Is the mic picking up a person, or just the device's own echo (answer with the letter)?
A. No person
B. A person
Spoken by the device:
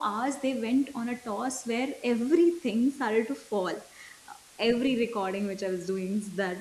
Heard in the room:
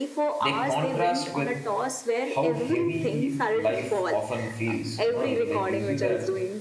B